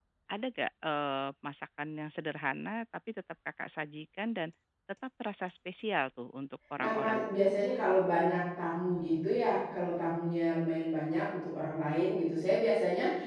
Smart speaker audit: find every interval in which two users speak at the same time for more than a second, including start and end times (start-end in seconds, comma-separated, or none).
none